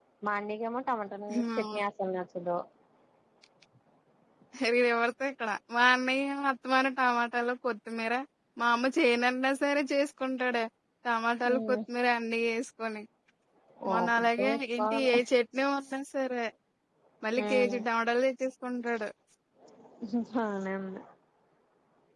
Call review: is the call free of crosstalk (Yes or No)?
No